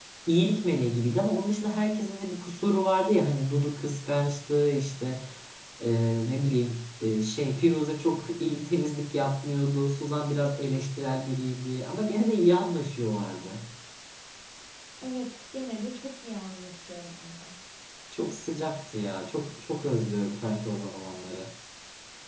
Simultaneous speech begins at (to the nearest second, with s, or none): none